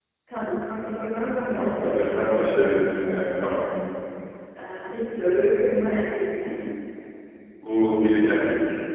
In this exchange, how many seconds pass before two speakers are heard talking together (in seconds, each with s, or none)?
1.5 s